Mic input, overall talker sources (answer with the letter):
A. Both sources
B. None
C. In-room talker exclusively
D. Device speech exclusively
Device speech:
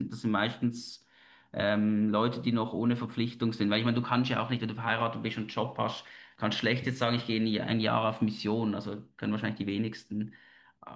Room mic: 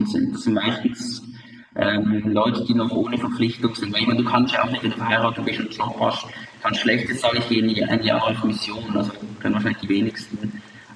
D